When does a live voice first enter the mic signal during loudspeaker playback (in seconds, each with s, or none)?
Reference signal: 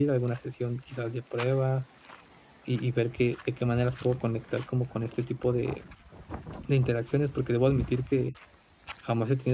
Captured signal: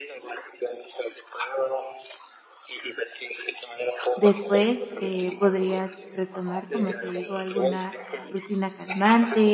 4.2 s